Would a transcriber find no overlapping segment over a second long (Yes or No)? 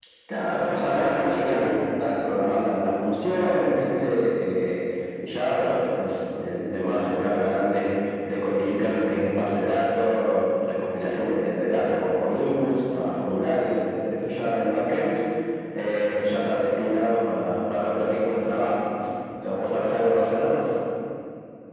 No